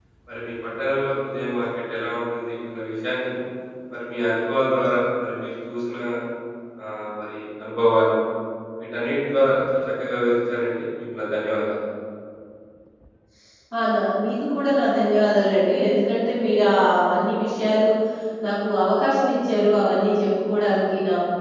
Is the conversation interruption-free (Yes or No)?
Yes